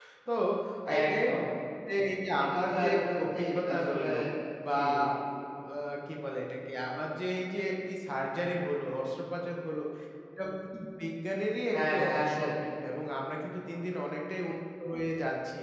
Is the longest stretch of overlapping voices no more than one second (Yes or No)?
No